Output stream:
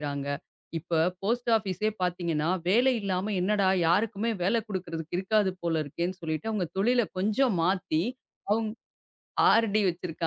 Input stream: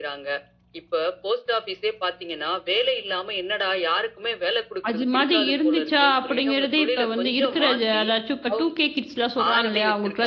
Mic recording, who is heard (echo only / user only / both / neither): both